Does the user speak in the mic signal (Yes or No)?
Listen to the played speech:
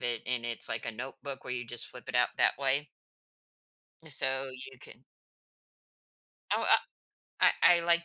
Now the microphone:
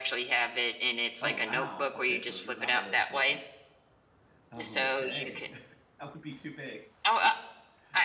Yes